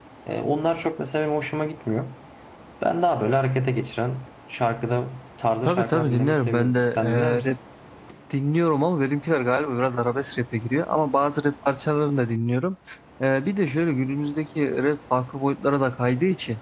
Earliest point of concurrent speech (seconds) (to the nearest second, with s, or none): 6 s